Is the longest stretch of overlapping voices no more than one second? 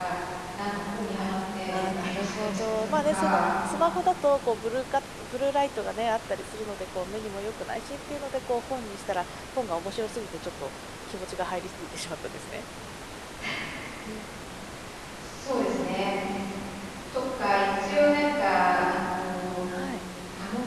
No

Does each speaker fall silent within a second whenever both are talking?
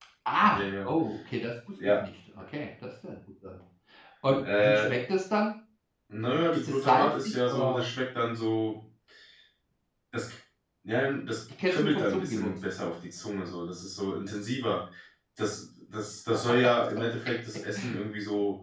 No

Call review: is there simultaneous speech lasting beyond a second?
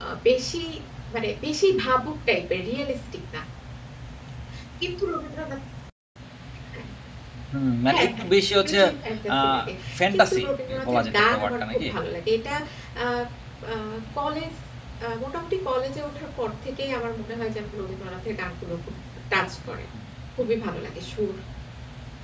Yes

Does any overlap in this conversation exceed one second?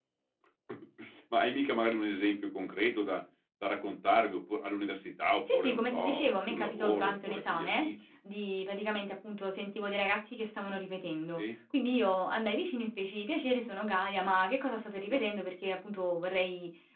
Yes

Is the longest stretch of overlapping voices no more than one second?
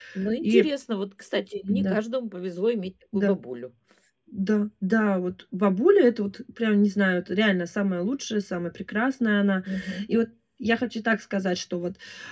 Yes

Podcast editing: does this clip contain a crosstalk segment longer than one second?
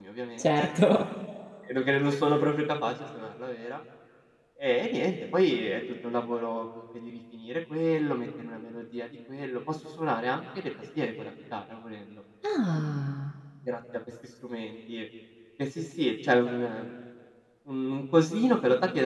No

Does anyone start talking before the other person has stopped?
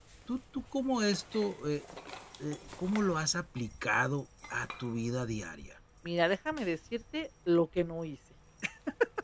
No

